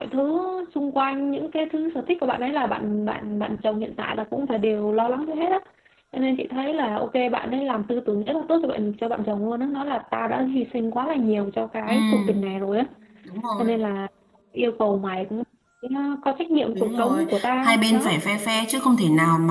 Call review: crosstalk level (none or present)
present